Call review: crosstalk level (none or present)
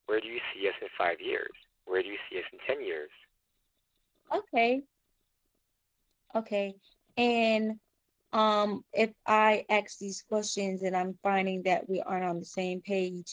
none